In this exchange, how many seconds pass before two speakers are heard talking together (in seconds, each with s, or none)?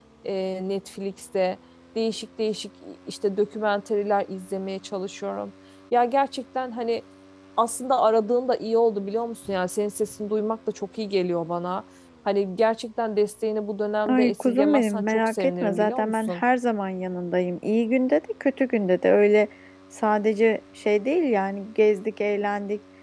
14.1 s